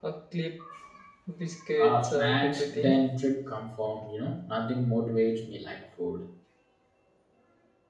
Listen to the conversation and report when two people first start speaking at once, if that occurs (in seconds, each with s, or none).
1.8 s